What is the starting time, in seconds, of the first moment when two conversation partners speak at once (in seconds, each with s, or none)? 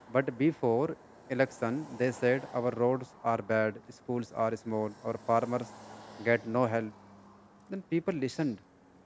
none